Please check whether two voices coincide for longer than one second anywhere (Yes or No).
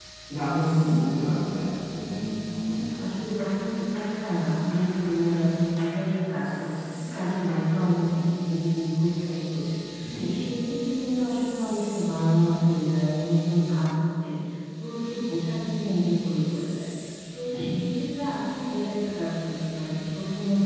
No